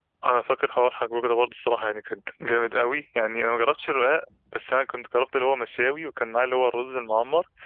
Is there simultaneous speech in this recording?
No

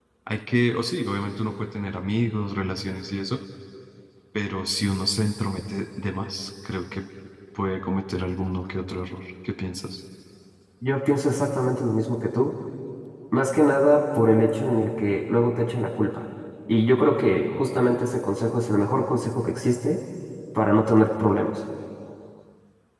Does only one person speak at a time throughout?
Yes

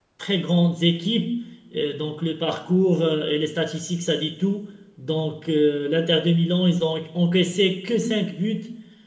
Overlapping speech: No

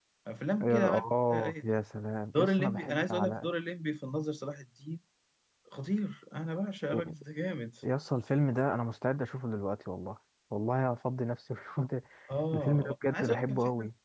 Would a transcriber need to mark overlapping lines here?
Yes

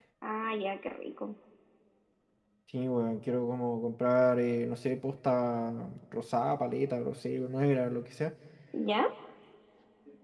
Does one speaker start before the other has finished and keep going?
No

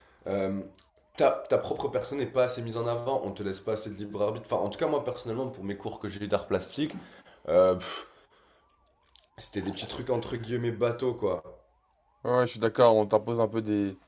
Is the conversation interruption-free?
Yes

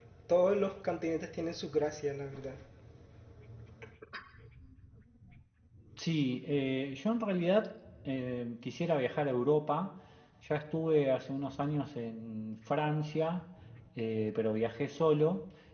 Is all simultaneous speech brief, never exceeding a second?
Yes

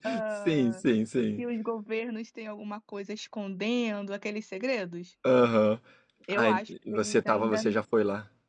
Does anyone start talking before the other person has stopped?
Yes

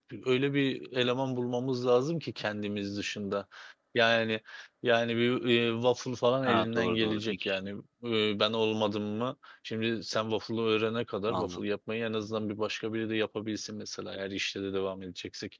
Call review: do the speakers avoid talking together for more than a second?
No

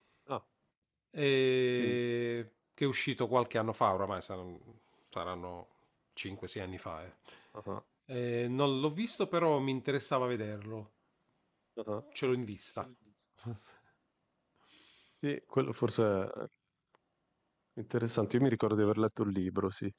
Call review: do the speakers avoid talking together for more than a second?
Yes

